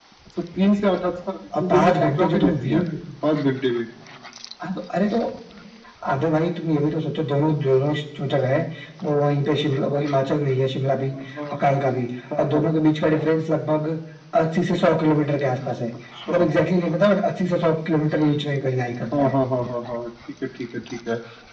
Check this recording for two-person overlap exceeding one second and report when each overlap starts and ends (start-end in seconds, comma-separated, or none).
1.6-2.8